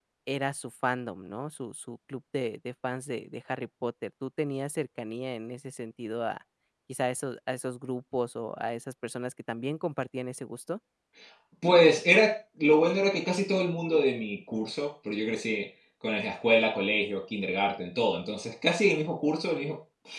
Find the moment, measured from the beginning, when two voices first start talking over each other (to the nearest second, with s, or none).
none